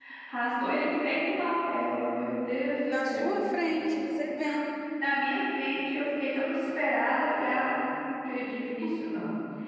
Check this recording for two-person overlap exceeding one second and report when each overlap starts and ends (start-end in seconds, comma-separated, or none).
none